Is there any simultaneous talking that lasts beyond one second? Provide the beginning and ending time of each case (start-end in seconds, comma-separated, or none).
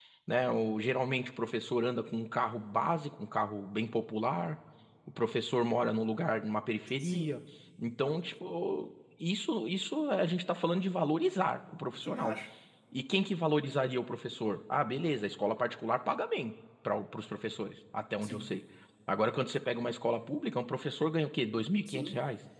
none